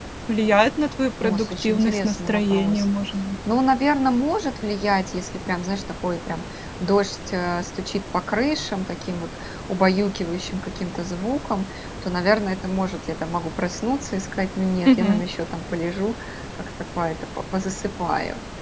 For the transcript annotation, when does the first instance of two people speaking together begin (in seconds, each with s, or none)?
1.2 s